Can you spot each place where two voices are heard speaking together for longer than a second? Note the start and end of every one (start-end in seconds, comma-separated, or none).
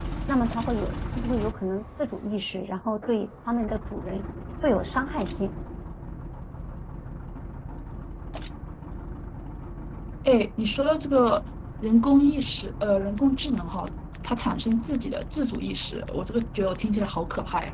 none